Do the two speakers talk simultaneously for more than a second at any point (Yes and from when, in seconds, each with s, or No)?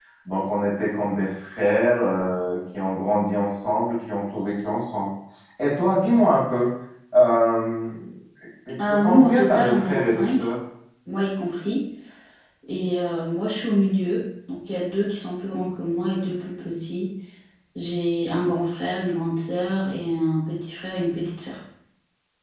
Yes, from 8.9 s